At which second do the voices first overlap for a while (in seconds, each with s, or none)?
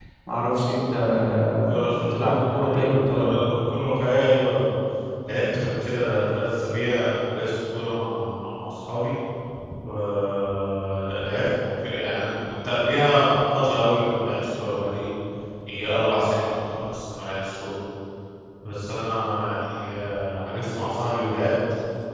1.7 s